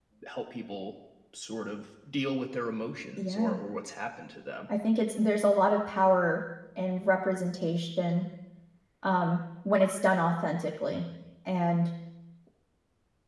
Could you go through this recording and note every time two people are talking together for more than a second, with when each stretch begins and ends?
none

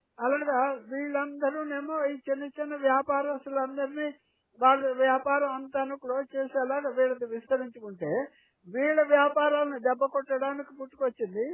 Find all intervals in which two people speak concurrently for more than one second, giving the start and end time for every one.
none

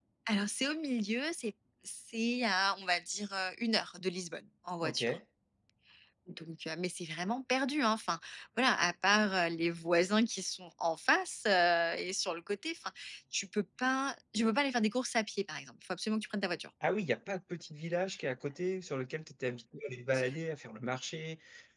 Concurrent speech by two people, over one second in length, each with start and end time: none

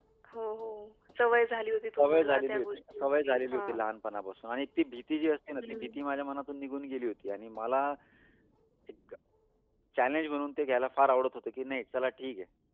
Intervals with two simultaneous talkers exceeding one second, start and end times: 2.0-3.9

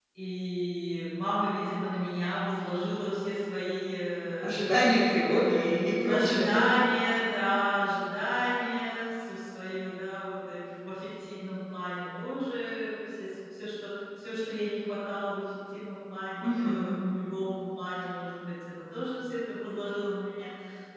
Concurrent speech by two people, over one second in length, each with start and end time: 5.2-6.7

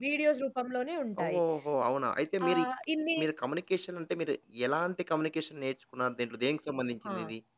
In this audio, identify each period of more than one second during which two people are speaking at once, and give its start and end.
none

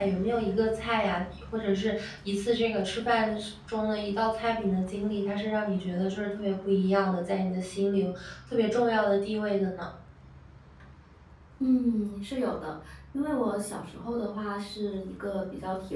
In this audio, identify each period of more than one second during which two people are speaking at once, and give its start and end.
none

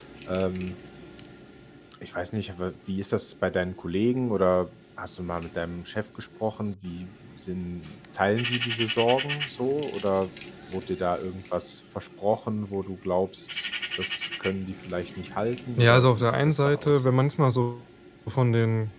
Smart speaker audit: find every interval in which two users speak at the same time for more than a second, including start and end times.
15.8-17.0

